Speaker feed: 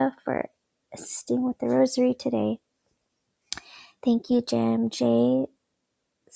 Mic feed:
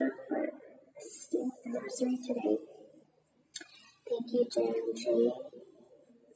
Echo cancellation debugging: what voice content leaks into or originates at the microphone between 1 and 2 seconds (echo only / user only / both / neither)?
echo only